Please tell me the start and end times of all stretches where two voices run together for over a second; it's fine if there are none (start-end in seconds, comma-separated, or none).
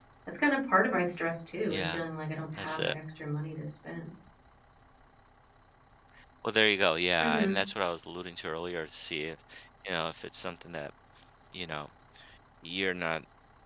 none